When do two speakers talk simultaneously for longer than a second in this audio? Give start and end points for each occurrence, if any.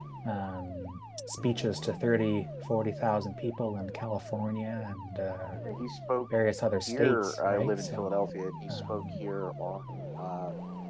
6.9-8.1

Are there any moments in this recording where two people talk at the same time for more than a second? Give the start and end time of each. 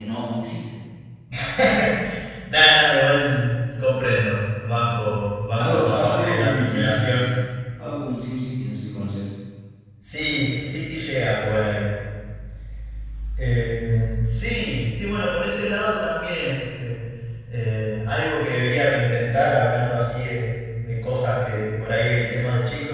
5.6-7.3

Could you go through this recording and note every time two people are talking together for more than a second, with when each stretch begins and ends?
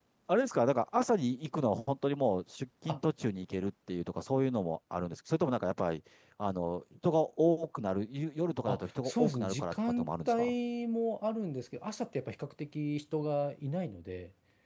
8.6-10.5

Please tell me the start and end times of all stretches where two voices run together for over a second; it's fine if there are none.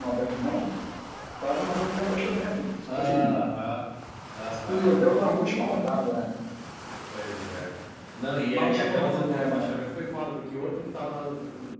8.5-9.7

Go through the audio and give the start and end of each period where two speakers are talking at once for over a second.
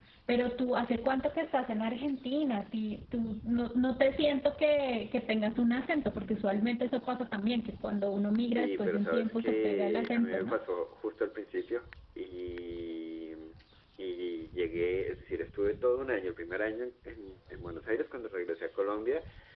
8.6-10.6

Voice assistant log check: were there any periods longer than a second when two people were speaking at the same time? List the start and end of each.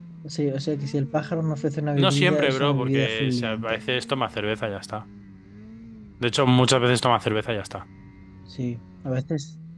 2.0-3.8

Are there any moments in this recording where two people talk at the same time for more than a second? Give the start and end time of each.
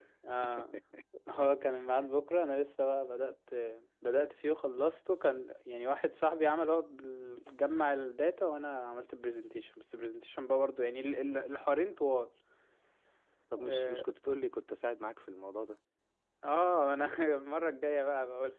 none

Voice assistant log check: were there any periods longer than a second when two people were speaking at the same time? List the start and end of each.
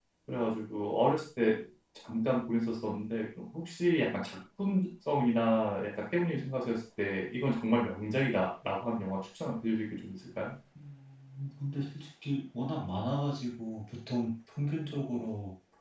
none

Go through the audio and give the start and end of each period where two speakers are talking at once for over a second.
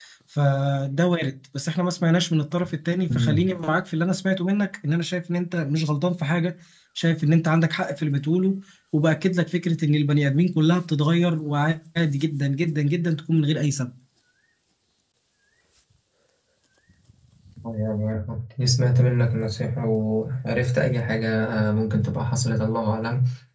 none

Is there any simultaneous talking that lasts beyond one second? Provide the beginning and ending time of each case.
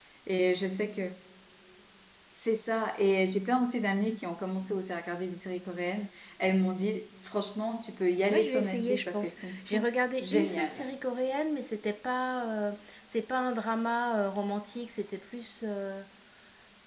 8.3-10.8

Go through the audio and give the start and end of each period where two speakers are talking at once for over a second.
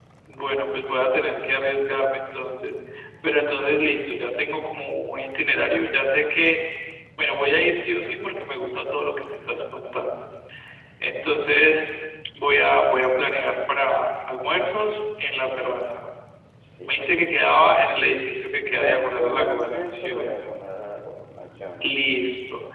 18.8-20.3

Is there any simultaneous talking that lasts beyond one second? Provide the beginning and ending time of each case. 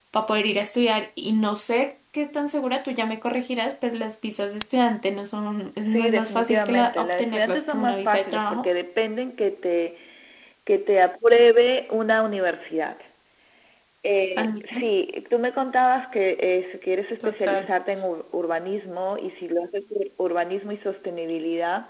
5.8-8.7

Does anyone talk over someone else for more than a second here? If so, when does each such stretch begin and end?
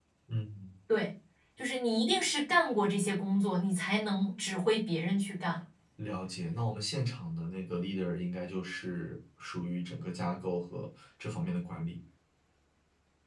none

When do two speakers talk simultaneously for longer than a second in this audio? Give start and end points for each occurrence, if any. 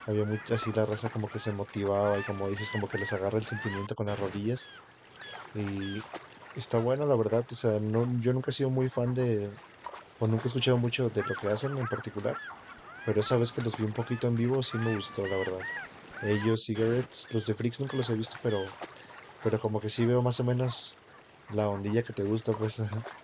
none

